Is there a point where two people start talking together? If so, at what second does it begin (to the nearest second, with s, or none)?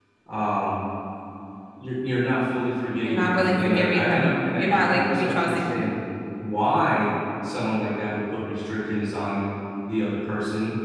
3 s